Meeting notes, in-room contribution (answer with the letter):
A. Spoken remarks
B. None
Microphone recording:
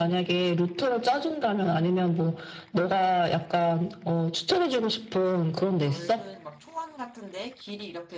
A